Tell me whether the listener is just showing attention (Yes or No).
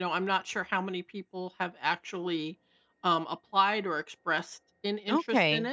No